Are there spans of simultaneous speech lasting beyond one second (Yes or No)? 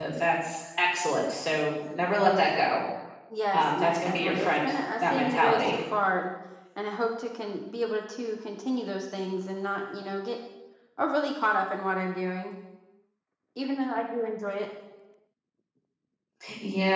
Yes